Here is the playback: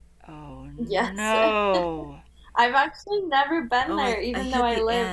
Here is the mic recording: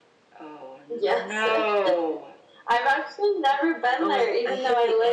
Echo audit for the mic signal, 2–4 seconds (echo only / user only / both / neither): echo only